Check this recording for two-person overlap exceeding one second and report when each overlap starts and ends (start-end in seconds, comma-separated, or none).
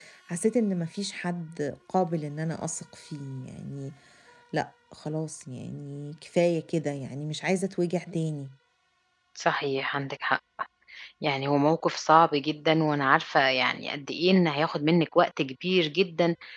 none